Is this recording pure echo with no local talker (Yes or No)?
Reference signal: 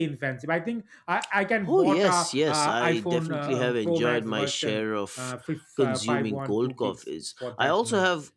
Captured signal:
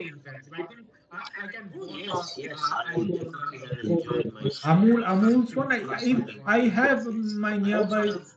No